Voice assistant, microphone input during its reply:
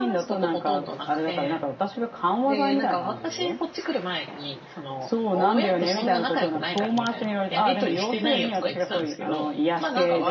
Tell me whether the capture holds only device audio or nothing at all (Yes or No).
Yes